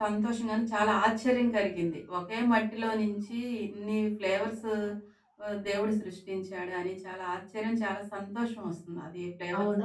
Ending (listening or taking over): taking over